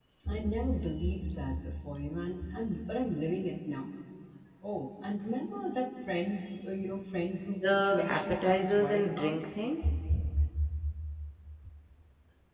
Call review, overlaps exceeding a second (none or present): present